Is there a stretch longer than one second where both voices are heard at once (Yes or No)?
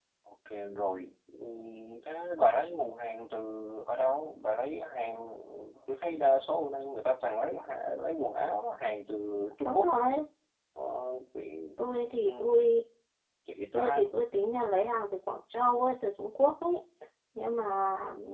No